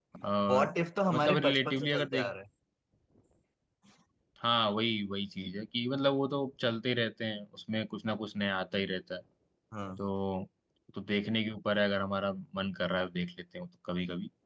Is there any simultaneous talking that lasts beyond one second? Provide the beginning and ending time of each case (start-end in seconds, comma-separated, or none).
1.1-2.3